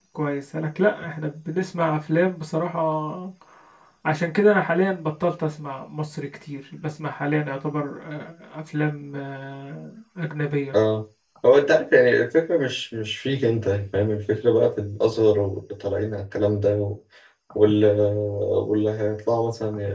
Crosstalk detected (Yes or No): No